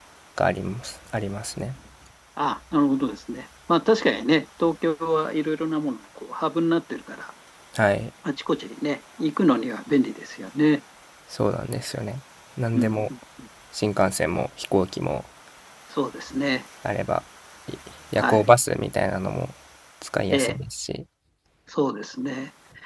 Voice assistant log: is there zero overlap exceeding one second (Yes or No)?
Yes